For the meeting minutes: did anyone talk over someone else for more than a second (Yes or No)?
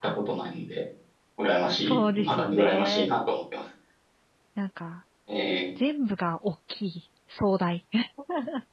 Yes